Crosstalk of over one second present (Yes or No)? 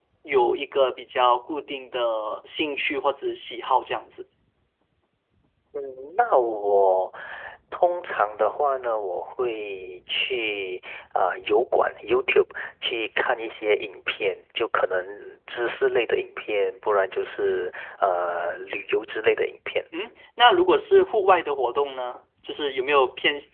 No